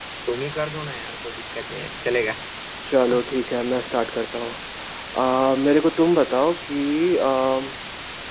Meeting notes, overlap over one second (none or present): none